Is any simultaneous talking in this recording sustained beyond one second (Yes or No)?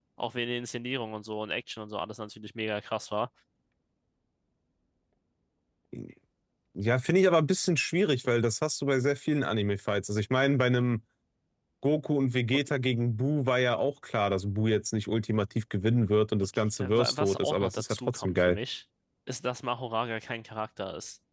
Yes